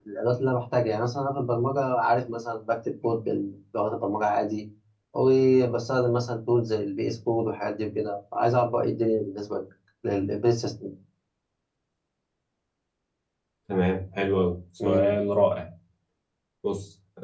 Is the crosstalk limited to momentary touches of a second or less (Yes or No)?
Yes